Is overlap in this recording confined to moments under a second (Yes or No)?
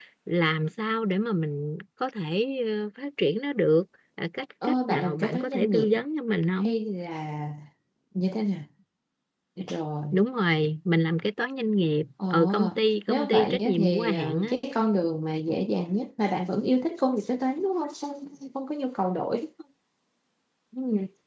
No